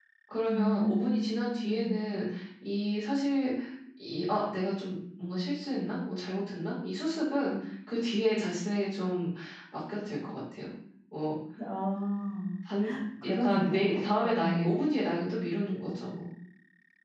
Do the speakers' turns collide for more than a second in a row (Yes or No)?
Yes